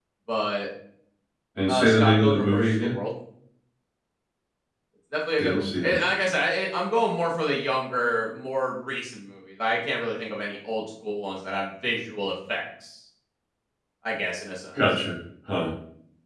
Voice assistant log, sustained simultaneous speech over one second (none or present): present